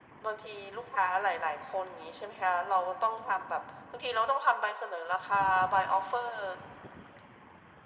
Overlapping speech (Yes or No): No